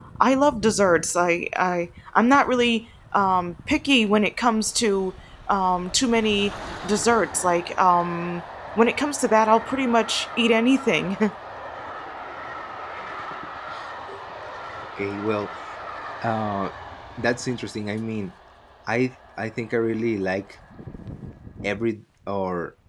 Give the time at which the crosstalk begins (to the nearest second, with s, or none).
none